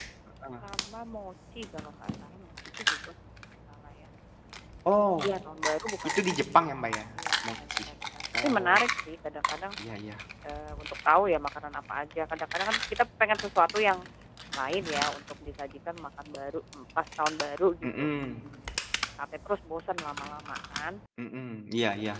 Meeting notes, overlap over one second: none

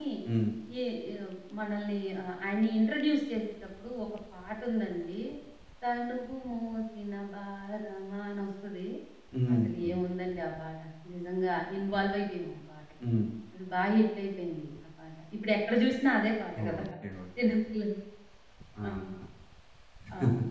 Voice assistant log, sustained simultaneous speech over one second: none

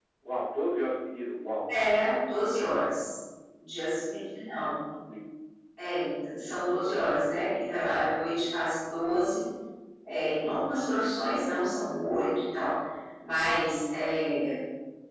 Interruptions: none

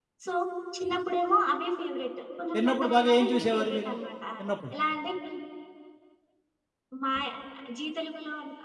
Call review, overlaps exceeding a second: present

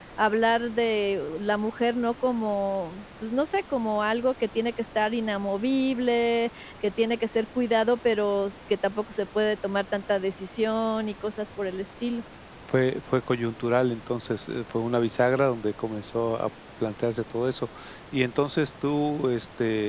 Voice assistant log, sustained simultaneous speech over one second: none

